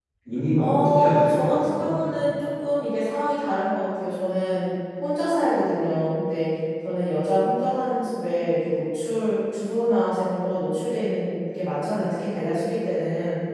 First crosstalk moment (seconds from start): 0.6 s

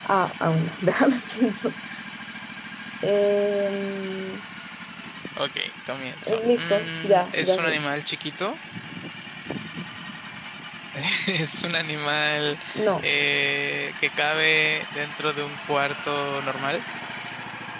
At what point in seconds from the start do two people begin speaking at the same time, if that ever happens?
6.2 s

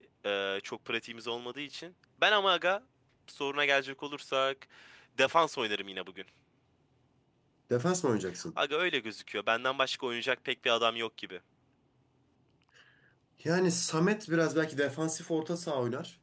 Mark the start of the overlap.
none

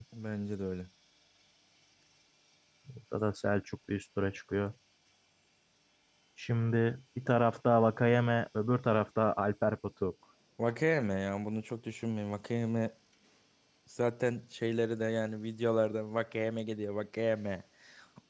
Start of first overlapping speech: none

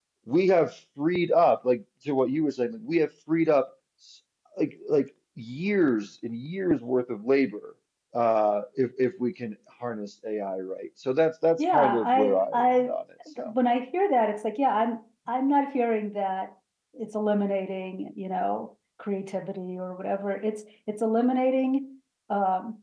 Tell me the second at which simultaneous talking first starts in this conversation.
11.6 s

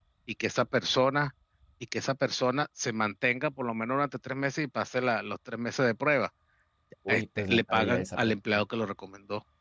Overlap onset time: 7.1 s

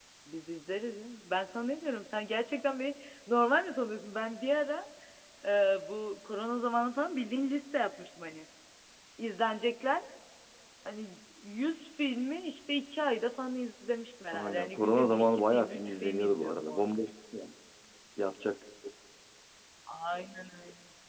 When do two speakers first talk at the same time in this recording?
14.3 s

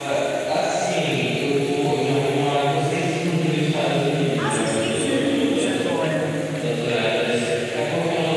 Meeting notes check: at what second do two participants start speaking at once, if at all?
4.3 s

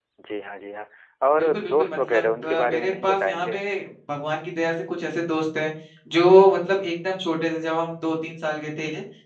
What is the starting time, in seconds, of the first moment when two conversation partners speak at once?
1.4 s

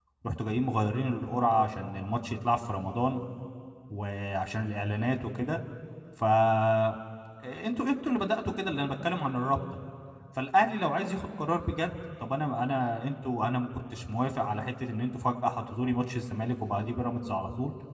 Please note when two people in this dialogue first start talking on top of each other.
none

